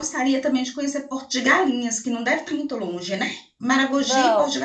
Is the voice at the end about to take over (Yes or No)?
No